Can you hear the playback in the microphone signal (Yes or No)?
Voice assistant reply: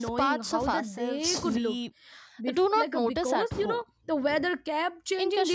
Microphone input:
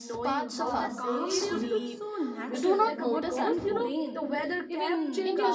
Yes